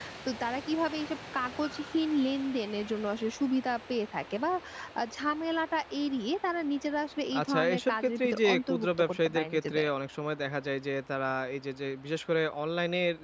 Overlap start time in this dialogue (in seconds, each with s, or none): 7.3 s